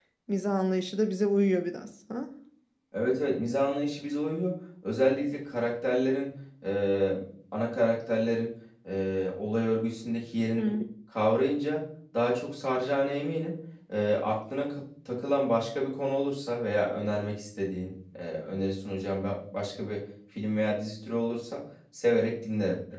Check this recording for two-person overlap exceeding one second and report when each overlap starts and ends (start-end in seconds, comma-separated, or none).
none